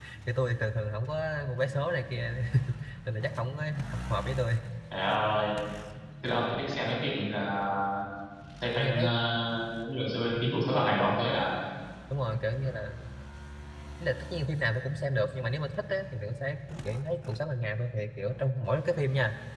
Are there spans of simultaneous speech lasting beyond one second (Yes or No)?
No